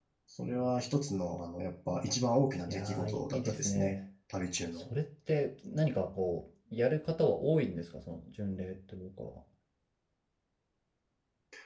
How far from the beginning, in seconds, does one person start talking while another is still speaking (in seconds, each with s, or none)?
2.7 s